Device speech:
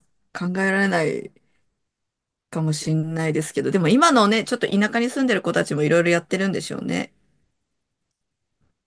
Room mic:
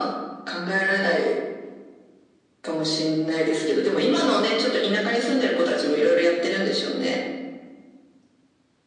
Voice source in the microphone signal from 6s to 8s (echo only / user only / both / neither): echo only